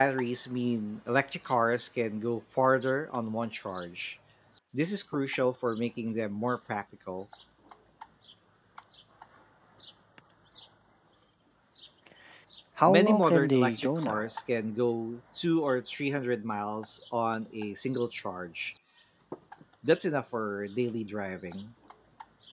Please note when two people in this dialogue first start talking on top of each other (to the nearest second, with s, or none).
13 s